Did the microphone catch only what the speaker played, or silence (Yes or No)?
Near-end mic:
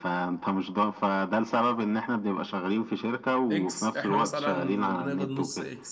No